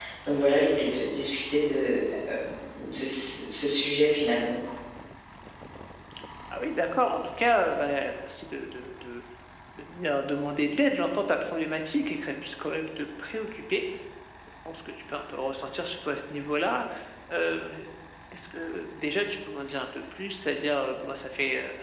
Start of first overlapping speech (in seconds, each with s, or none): none